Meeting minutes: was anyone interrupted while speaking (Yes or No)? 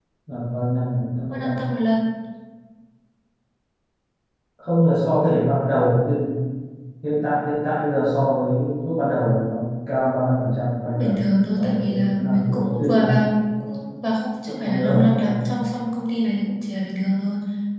Yes